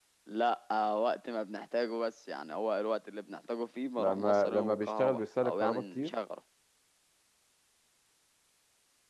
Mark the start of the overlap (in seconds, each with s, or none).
4.0 s